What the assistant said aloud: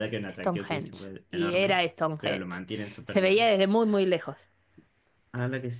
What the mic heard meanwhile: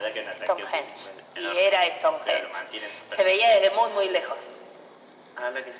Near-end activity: none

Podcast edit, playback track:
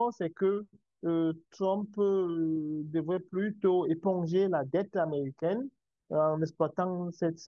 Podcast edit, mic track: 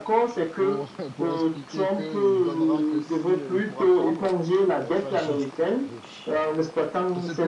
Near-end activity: present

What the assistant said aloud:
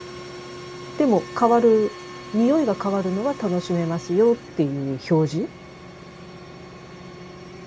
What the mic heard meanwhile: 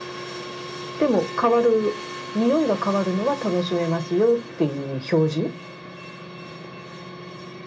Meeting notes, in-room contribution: none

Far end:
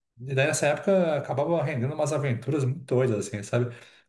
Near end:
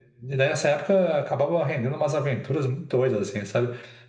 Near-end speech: none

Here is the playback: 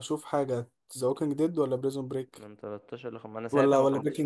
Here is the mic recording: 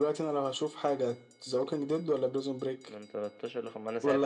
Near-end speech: none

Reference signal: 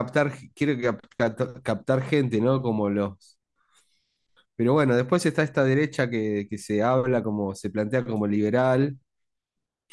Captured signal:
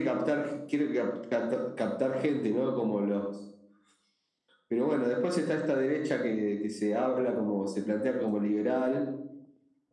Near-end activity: none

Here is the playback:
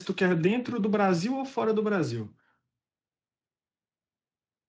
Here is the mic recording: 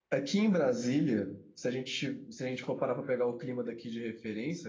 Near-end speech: present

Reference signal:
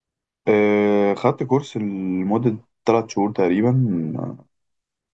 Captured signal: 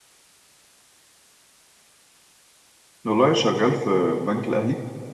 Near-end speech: present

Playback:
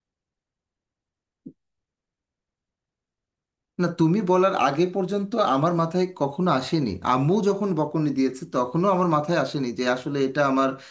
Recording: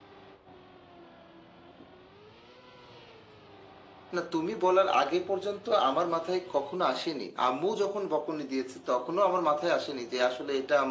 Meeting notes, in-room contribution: none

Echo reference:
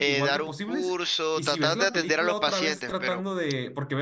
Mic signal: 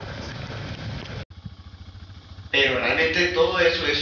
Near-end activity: present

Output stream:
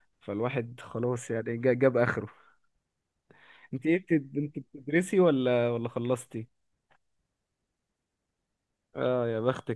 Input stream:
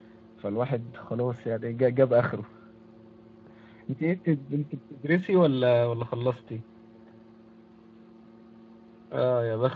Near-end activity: none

